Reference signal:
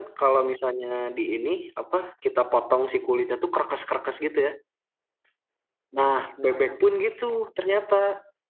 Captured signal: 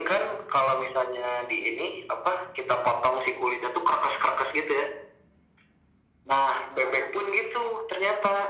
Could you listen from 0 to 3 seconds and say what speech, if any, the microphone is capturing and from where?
echo only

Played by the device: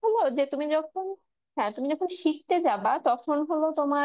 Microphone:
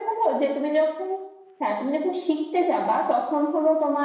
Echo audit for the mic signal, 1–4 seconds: echo only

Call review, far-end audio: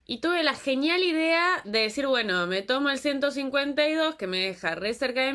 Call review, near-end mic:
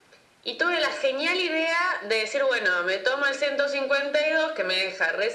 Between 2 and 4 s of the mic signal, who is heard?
echo only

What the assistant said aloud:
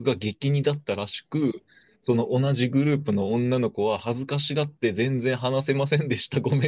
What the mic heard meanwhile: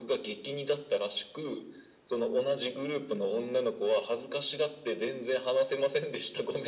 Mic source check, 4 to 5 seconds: echo only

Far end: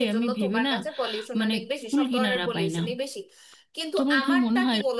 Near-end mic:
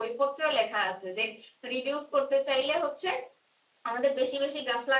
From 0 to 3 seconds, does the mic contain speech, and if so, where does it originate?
user only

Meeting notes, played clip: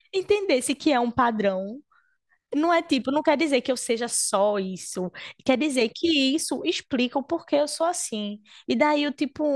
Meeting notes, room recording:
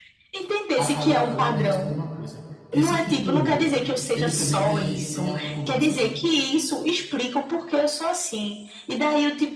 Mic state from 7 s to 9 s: echo only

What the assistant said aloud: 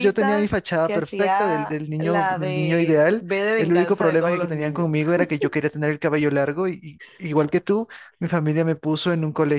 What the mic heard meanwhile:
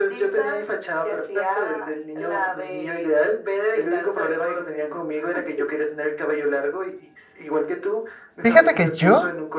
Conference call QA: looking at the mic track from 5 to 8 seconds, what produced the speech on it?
echo only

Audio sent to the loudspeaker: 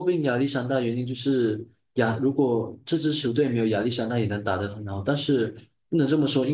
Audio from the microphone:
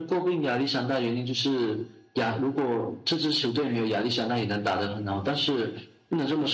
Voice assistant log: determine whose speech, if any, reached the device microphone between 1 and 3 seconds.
echo only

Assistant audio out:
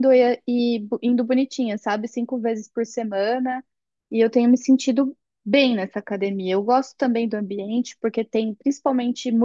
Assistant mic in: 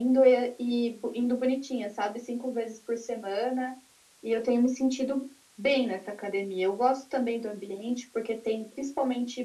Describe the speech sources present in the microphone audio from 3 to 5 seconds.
echo only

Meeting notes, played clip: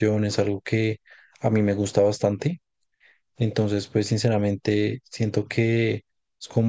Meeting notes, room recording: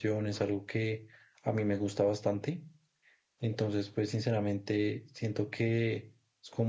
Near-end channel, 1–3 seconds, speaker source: echo only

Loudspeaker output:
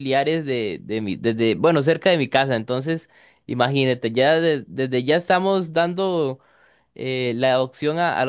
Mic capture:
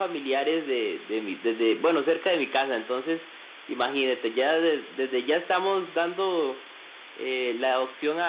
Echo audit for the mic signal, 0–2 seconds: echo only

